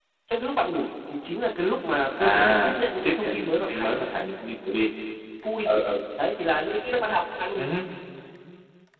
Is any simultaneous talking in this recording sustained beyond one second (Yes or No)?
Yes